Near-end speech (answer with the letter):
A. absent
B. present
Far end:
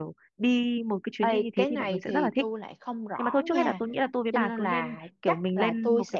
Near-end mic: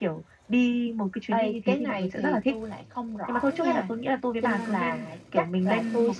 A